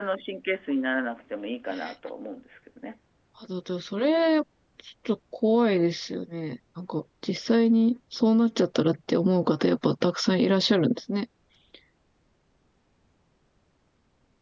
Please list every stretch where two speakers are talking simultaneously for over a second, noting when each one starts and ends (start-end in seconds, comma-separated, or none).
none